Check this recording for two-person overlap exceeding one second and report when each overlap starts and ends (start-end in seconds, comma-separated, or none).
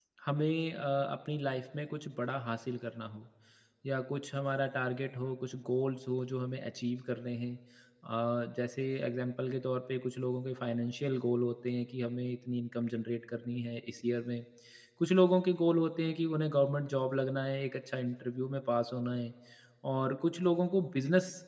none